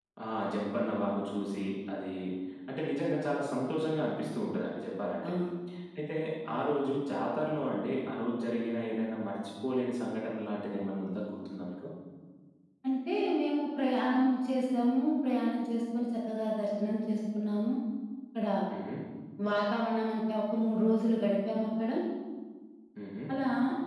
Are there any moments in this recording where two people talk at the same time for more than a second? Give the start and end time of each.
none

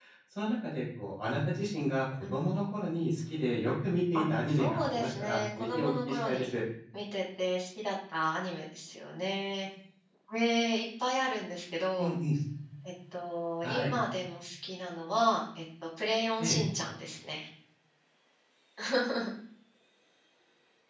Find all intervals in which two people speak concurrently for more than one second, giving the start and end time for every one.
4.1-6.5

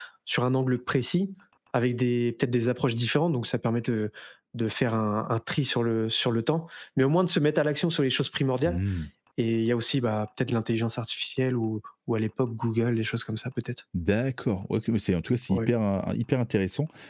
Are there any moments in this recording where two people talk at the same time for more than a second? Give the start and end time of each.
none

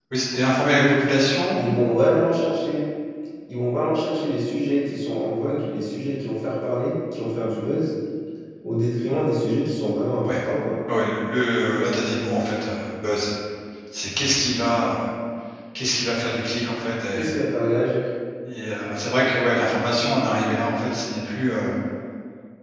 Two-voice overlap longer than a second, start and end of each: none

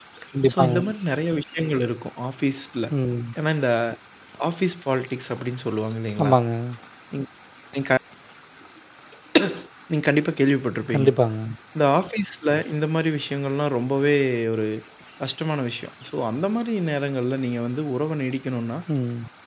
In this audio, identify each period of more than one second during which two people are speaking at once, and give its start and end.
none

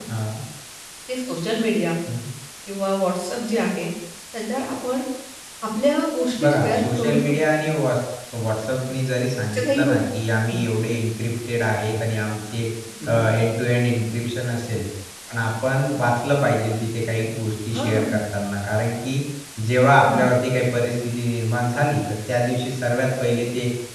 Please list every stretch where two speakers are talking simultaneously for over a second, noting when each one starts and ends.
6.4-7.6

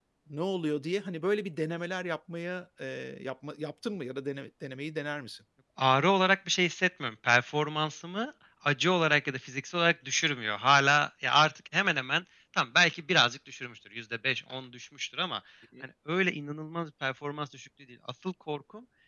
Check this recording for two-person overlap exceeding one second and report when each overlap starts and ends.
none

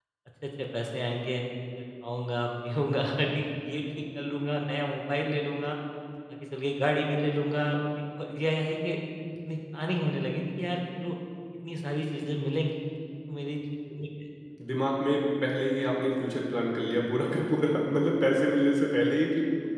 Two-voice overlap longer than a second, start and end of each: none

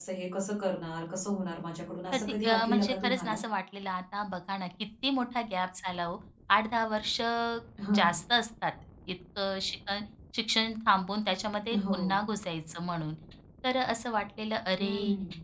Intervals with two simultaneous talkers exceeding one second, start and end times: 2.1-3.4

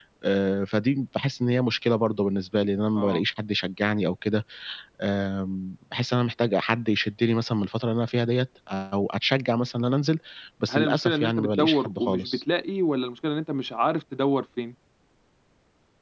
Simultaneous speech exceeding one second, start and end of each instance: 10.7-12.4

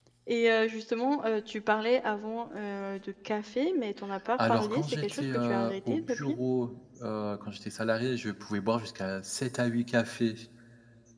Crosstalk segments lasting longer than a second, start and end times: 4.4-6.4

